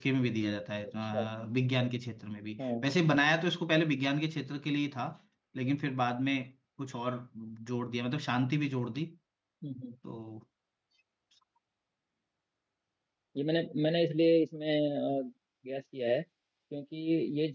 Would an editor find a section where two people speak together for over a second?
No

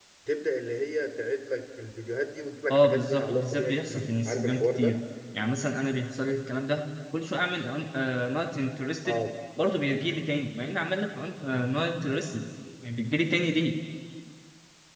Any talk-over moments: Yes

